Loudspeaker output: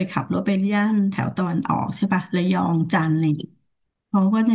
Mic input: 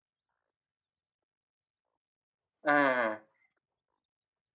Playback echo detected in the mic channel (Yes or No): No